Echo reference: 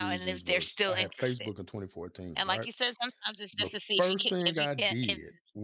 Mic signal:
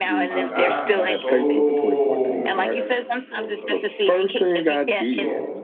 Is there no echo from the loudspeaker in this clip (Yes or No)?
No